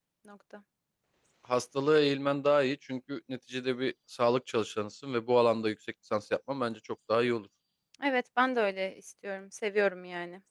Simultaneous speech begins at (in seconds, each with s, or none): none